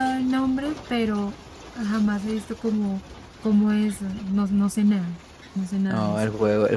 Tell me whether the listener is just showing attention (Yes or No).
No